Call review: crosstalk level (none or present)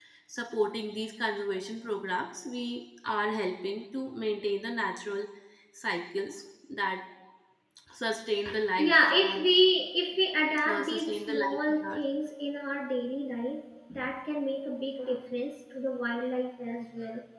present